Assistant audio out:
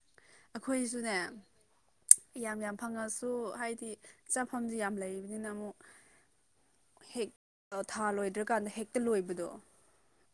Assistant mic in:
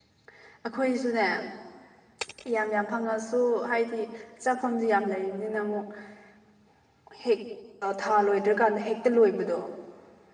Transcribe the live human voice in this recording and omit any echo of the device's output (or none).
none